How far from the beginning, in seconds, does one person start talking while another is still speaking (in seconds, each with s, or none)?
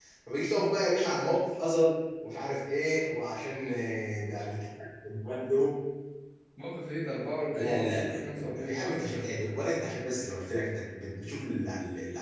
7.5 s